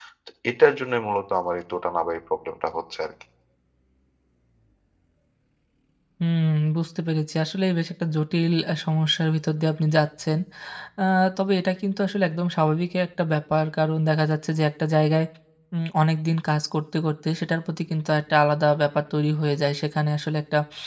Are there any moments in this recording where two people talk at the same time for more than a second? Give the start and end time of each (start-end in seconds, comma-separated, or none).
none